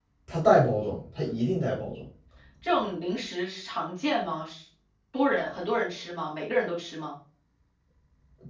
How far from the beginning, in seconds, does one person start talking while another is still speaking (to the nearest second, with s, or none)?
none